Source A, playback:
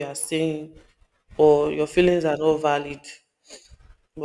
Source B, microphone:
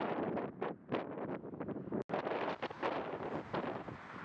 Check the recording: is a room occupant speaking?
No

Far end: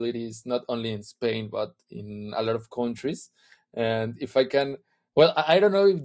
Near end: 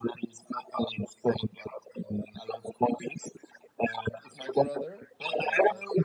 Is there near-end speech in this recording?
Yes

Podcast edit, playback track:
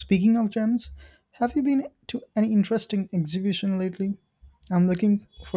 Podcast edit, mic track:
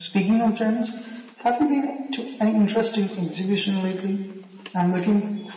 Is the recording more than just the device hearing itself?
No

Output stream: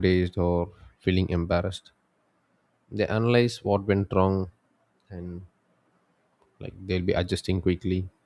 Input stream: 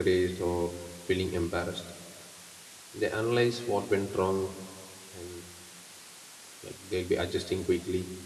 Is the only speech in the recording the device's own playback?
Yes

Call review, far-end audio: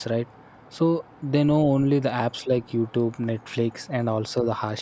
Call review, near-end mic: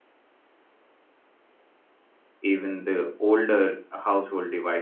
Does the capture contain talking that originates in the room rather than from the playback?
Yes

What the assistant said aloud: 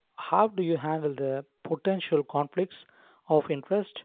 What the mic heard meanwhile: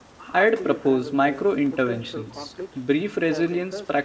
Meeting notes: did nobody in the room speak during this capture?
No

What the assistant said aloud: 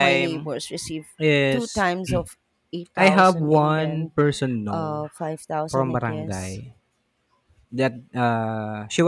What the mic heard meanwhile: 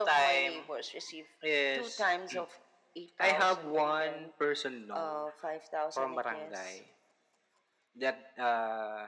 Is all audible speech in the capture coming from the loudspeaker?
Yes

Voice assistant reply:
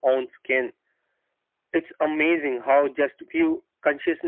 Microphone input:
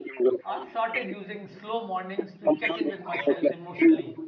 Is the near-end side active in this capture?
Yes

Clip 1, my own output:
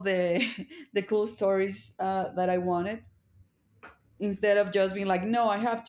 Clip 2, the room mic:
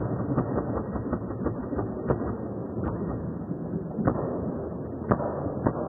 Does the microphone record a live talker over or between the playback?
No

